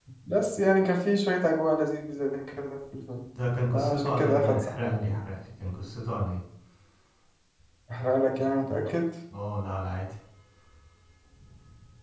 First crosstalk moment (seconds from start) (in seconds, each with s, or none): 3.7 s